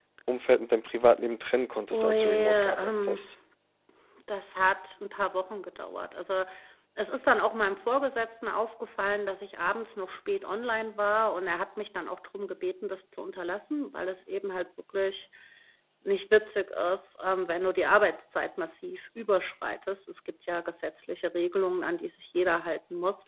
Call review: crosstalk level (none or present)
present